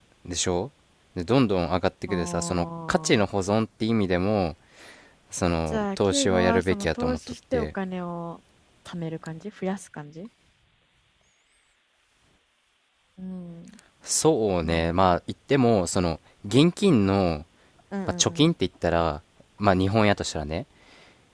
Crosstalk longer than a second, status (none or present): present